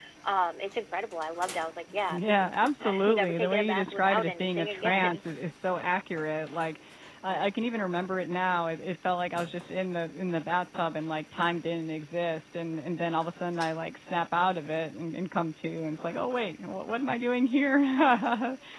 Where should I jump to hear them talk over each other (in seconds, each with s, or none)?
2.1 s